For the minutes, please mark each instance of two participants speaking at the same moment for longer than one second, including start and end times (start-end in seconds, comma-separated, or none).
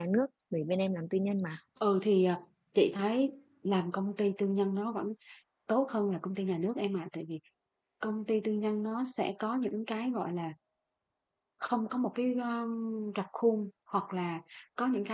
none